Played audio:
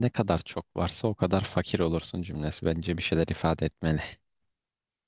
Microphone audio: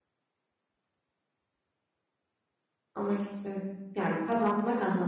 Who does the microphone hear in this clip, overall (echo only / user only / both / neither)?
user only